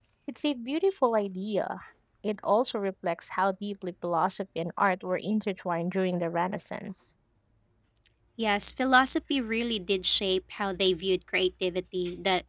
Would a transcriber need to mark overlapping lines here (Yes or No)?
No